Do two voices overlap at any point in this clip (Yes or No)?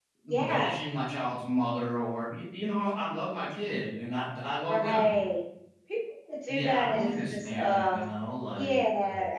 Yes